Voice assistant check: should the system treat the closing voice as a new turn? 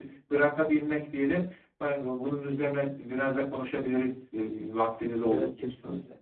Yes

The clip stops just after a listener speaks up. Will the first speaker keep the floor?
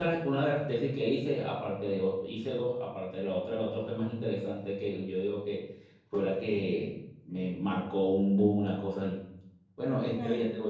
Yes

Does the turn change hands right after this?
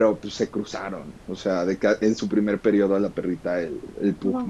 No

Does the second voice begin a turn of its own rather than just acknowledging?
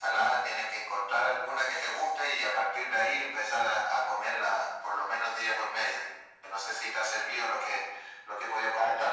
Yes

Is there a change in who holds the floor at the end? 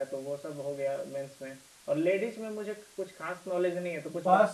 Yes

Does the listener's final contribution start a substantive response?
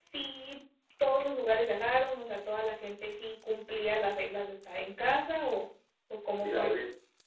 Yes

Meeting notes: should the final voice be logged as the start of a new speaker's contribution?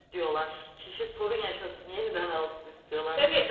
Yes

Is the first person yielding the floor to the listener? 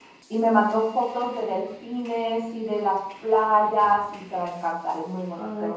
Yes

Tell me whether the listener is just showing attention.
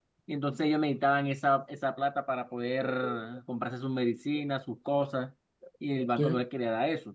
Yes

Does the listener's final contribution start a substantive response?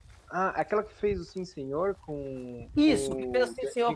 Yes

